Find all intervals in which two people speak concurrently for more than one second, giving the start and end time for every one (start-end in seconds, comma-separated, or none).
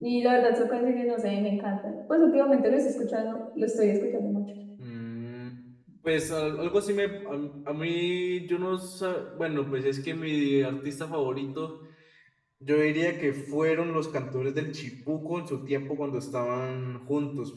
none